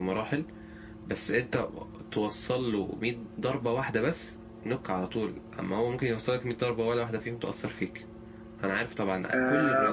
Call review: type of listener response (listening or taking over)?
taking over